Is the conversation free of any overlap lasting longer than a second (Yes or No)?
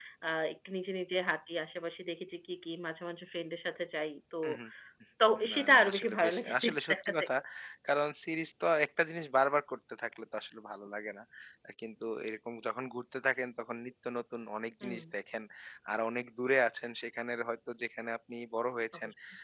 No